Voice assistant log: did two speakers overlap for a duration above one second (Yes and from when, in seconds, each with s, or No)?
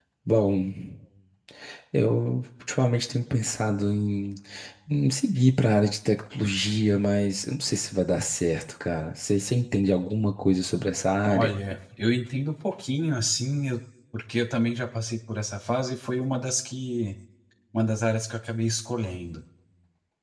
No